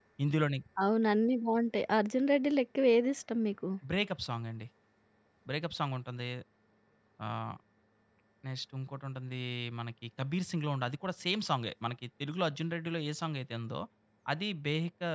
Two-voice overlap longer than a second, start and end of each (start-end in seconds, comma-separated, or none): none